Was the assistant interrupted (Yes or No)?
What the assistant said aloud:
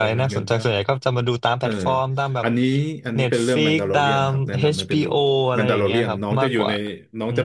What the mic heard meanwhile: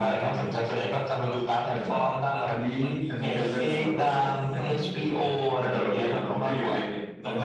Yes